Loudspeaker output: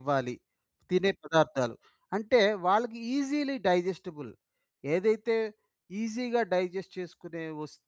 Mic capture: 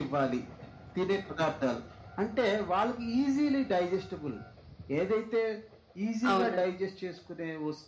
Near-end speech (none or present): present